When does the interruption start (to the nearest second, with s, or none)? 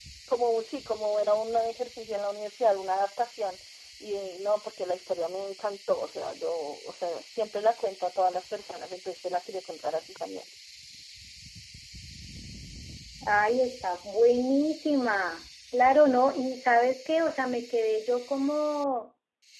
none